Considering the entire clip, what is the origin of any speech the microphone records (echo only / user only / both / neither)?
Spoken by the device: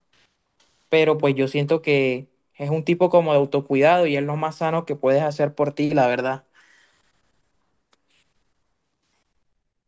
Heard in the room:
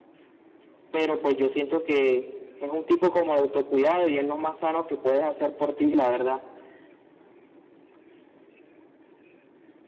echo only